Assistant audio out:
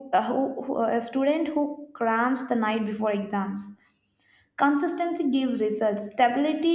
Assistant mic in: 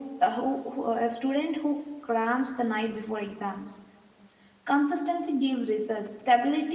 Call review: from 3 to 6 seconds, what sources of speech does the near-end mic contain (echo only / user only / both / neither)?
echo only